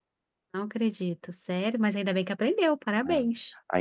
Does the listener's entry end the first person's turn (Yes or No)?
Yes